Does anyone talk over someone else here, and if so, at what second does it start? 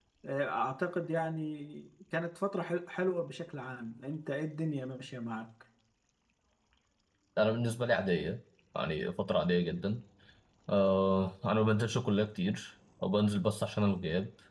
none

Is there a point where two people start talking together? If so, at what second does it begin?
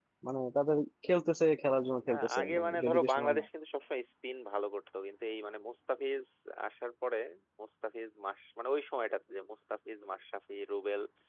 2.1 s

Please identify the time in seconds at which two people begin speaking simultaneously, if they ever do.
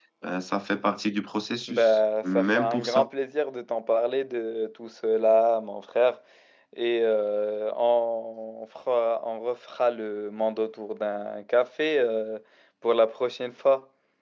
1.7 s

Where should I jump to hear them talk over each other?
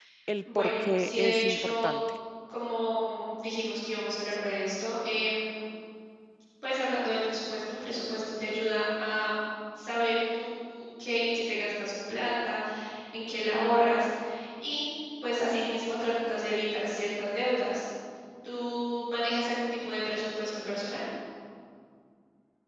0.6 s

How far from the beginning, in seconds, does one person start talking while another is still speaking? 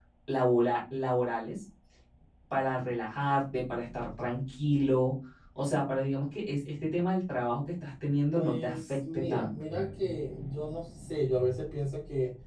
8.3 s

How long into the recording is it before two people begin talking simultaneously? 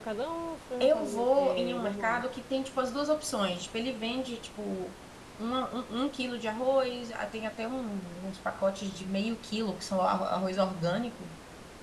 0.8 s

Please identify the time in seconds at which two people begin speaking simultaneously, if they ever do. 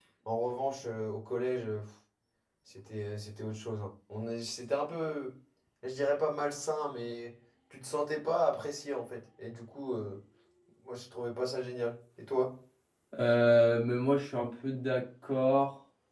none

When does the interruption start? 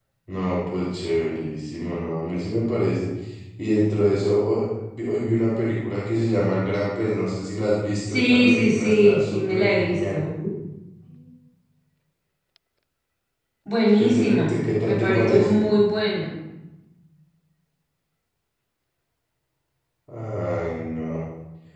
8.1 s

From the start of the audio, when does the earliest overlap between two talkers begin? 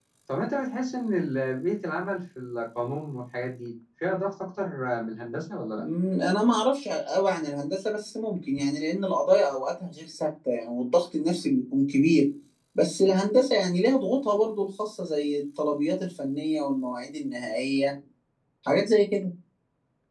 none

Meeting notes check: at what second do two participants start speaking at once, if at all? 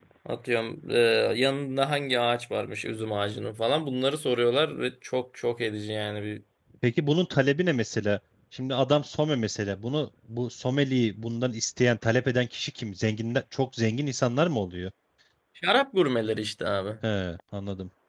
none

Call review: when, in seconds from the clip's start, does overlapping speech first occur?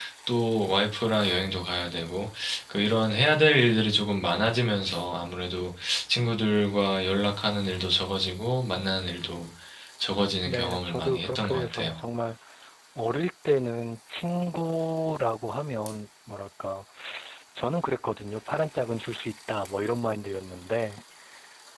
10.4 s

